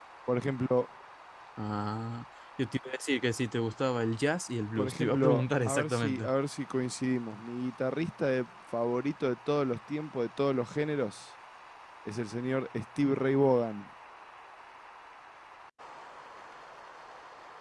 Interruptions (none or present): present